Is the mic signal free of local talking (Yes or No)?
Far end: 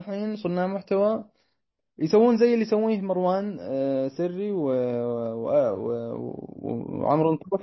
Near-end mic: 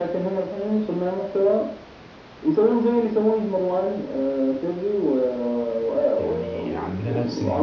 No